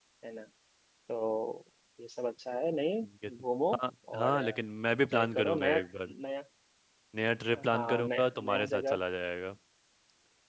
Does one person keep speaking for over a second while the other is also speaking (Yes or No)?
Yes